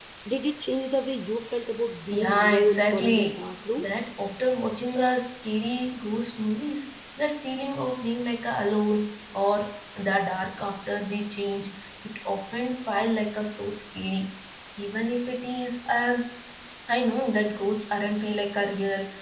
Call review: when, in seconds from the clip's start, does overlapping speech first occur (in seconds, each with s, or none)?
2.1 s